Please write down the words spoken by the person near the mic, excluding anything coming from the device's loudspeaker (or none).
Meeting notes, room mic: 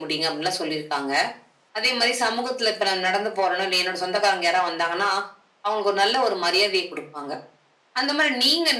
none